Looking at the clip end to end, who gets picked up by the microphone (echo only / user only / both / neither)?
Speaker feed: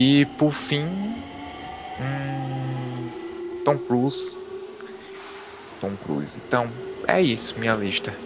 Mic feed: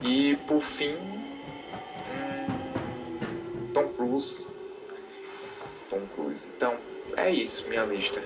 echo only